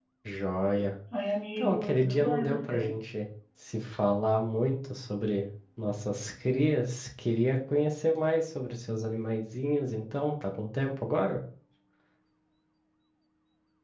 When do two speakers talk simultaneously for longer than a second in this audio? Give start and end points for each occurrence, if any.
1.6-2.9

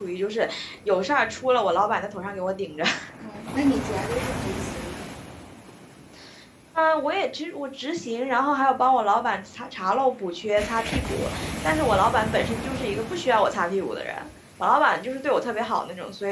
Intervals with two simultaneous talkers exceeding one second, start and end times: none

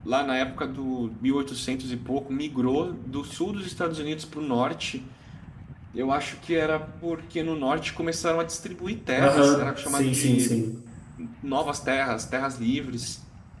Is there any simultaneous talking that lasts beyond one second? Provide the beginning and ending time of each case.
9.2-10.5

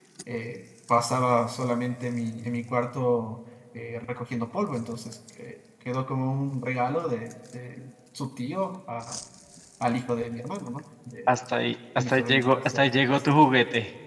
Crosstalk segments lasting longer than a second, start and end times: 11.9-13.3

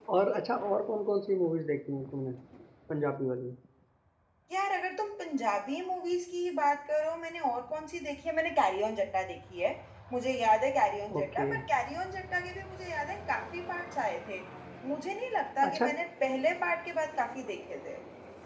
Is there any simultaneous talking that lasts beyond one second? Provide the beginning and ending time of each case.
none

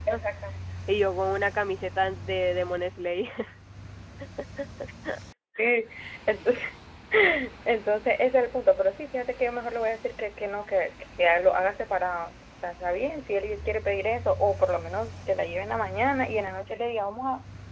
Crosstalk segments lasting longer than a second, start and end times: none

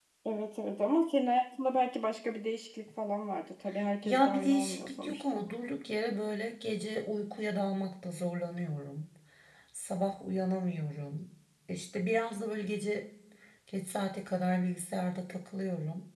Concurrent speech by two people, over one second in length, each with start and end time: 4.0-5.4

